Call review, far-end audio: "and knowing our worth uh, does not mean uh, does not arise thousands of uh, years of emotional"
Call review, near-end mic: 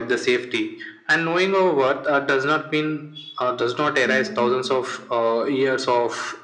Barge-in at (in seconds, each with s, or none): 4.0 s